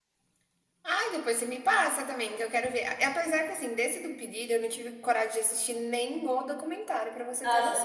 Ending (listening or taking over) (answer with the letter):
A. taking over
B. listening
A